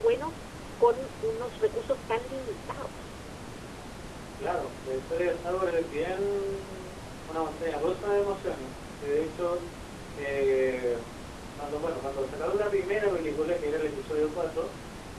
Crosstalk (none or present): none